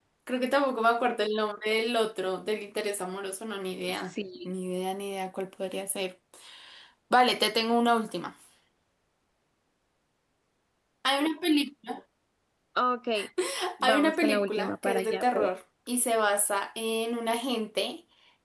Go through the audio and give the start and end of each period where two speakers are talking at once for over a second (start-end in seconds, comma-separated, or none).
13.8-15.5